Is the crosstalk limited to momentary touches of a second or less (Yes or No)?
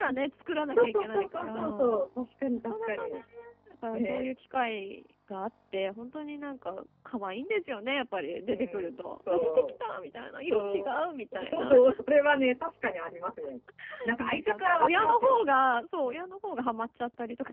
No